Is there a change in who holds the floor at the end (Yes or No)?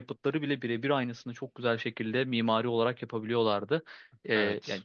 No